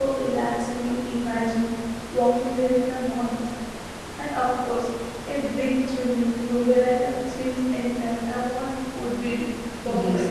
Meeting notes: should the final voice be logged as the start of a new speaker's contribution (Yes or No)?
Yes